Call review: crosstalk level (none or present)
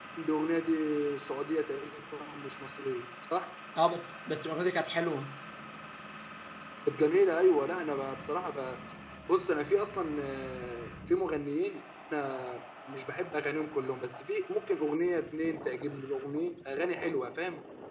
none